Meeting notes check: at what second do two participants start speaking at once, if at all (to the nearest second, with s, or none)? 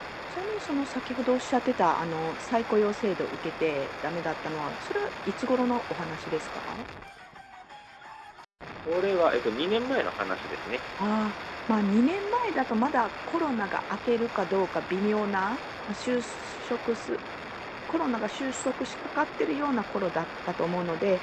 none